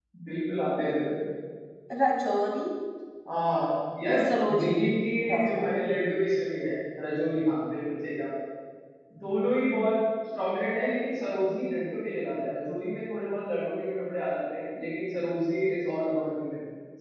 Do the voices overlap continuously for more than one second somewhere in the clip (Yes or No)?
No